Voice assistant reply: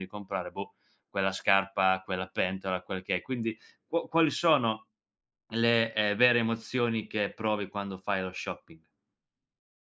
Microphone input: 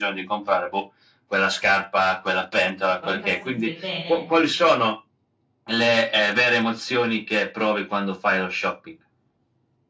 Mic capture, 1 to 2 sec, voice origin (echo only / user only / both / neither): echo only